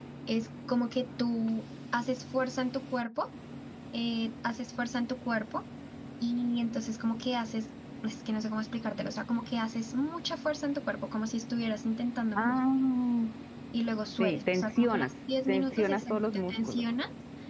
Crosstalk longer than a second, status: present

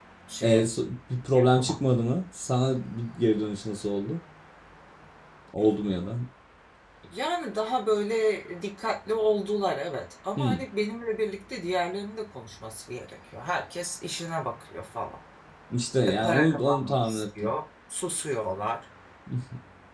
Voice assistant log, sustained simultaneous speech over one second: present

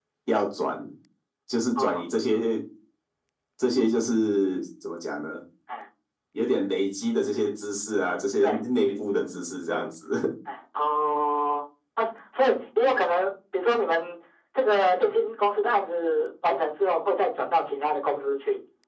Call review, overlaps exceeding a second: none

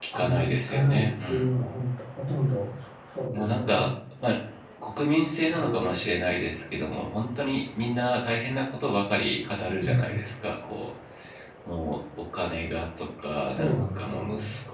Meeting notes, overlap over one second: present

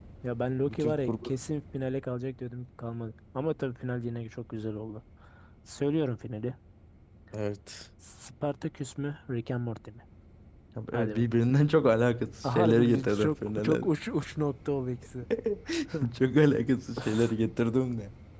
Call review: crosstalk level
present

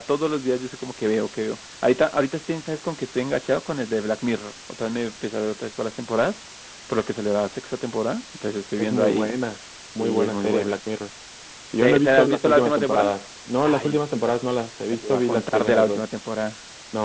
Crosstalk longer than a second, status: present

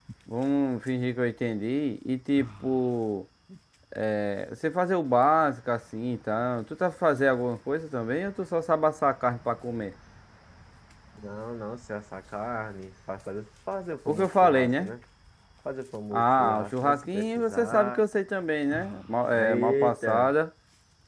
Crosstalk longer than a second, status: present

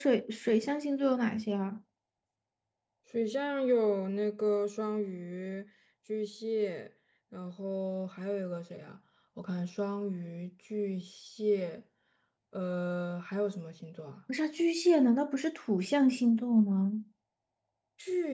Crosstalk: none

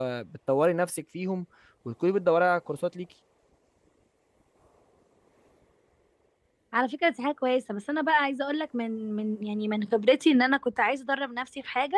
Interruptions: none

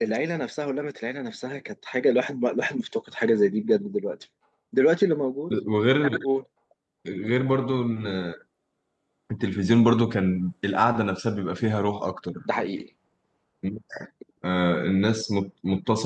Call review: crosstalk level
none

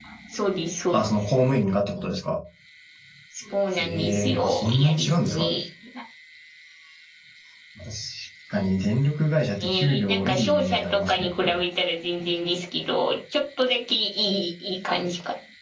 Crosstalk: present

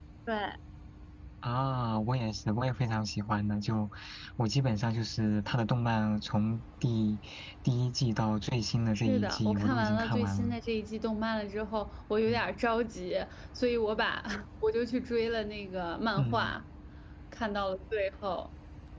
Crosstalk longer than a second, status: present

